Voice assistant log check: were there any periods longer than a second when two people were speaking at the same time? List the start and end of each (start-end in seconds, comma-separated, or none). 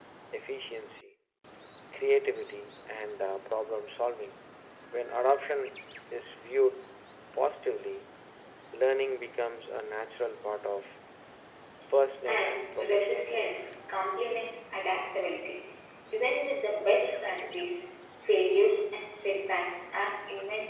12.3-13.5